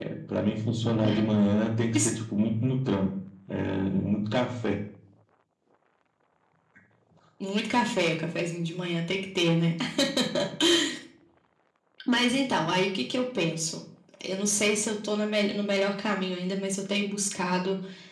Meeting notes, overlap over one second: none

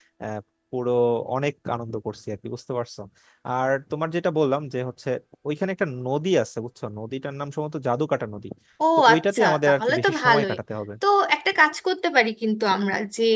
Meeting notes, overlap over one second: present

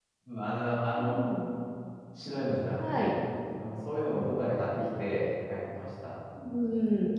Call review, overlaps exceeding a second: none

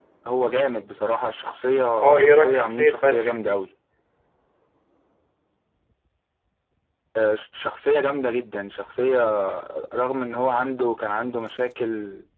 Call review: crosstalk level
present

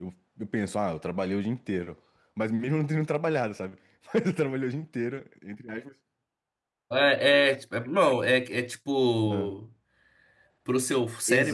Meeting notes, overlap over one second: none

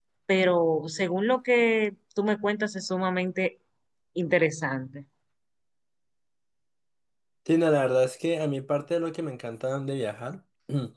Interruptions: none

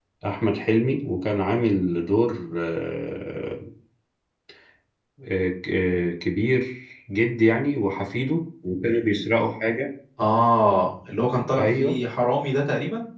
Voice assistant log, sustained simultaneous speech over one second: none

